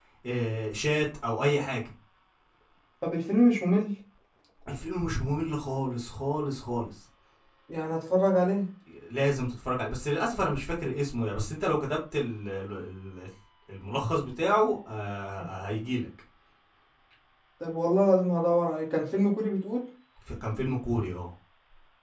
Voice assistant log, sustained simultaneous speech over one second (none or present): none